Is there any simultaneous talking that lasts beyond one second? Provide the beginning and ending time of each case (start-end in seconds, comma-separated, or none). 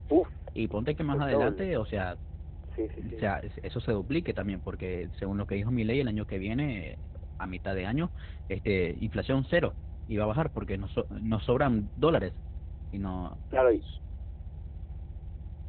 none